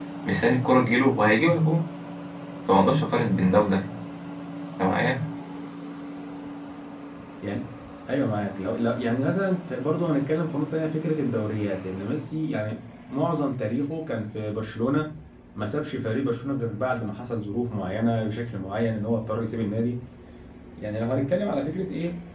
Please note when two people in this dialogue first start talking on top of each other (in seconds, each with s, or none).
none